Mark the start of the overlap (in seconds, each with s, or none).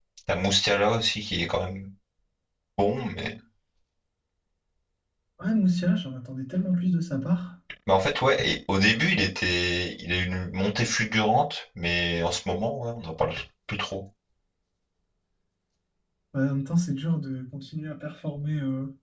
none